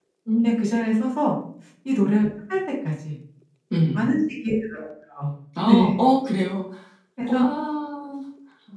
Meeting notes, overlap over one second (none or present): none